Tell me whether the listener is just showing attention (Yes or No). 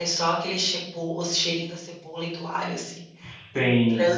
No